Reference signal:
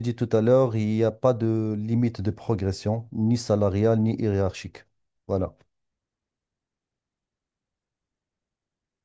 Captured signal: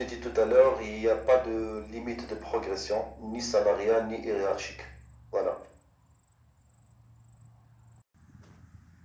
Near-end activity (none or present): none